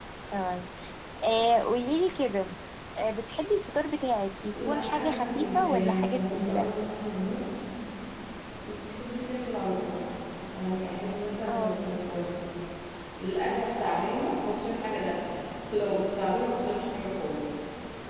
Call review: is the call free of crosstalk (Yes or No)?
No